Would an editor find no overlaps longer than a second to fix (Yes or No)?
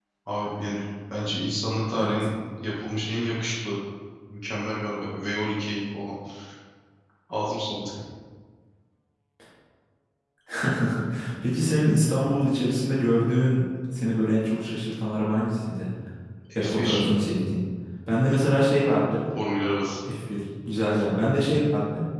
Yes